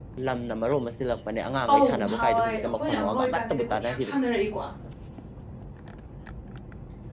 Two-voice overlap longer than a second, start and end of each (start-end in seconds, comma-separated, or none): 1.7-4.2